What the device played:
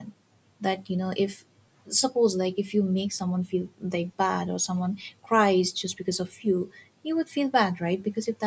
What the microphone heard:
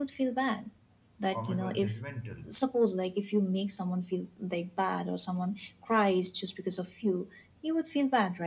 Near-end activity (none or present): present